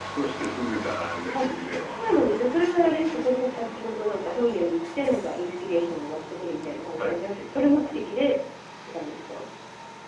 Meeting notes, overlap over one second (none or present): none